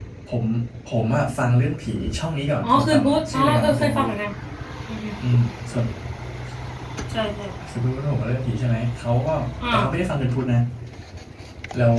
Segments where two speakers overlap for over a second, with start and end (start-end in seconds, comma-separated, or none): 2.6-4.1